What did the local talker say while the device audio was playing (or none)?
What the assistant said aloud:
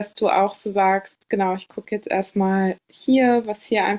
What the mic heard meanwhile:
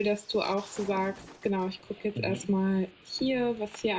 Mhm.